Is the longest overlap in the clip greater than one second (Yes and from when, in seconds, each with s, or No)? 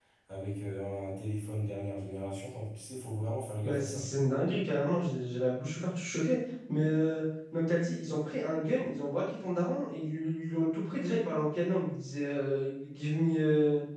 No